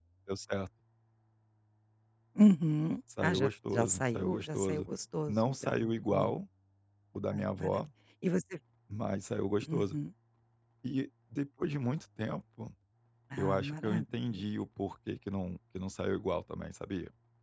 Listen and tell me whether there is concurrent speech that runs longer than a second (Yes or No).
Yes